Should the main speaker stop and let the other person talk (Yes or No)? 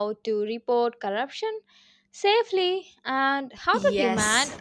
Yes